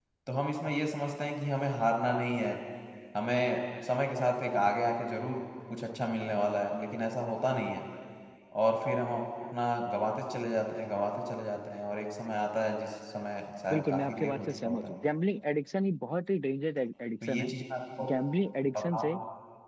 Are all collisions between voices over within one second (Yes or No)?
No